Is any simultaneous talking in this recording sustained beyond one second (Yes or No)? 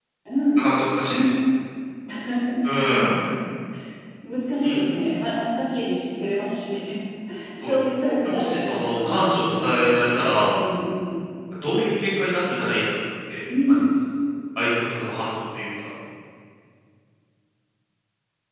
Yes